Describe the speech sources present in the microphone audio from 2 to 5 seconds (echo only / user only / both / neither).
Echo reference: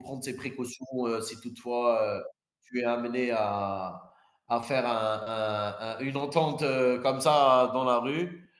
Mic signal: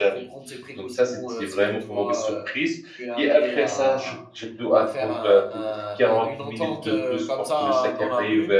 both